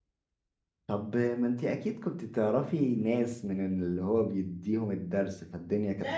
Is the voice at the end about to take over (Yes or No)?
Yes